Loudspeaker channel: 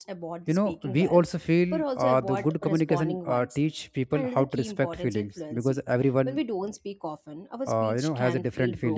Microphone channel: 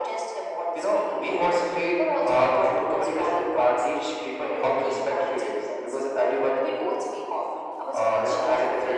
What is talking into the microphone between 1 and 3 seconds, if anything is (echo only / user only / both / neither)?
echo only